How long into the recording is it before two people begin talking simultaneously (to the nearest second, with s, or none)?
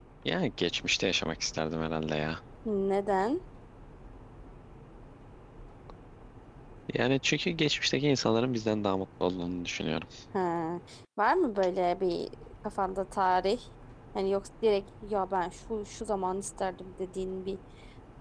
none